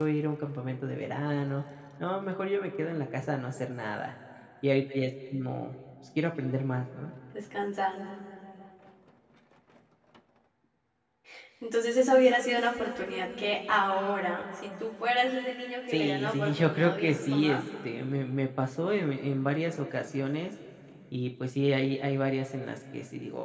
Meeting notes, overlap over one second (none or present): present